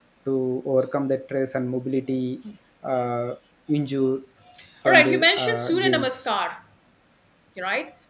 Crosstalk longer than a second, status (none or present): present